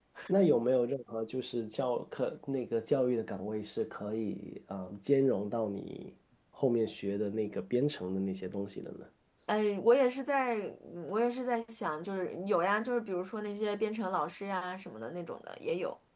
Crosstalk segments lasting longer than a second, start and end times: none

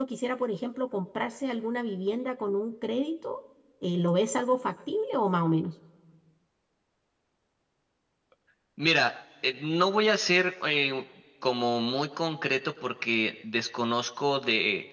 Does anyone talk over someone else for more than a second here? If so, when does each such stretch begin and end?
none

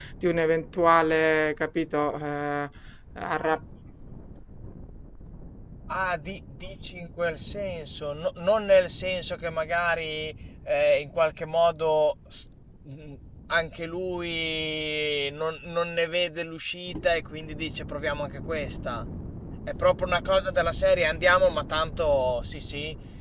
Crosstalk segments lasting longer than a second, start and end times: none

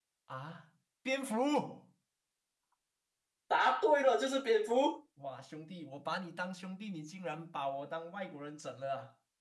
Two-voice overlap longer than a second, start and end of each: none

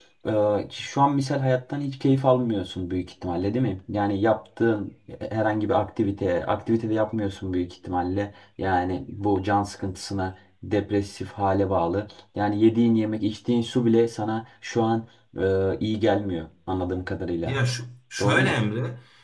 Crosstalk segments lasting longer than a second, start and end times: none

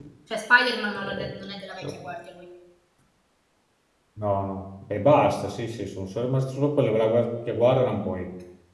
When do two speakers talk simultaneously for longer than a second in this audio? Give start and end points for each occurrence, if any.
none

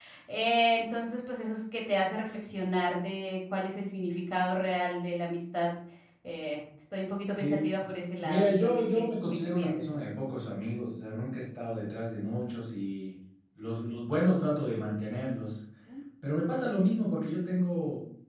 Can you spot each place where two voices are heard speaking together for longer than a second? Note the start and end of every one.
8.2-9.9

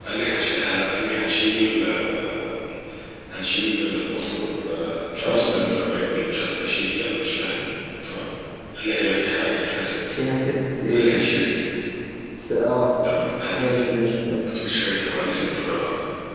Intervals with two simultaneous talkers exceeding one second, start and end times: none

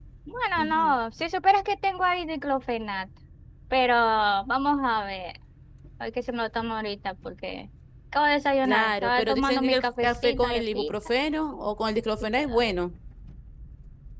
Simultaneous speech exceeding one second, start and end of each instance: 8.6-10.9

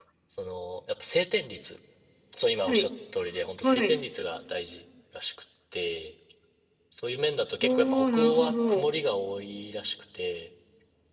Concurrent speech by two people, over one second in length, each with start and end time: 7.6-8.9

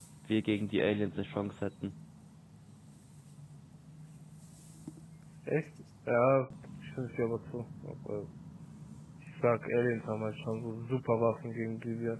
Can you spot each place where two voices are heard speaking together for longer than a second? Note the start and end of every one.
none

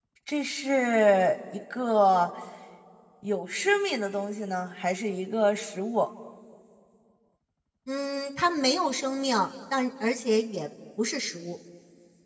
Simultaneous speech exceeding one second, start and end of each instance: none

